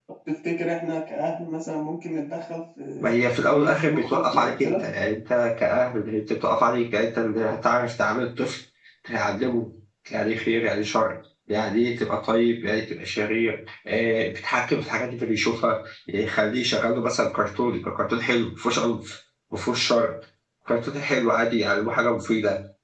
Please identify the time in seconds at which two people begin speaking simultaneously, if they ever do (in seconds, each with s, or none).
3.4 s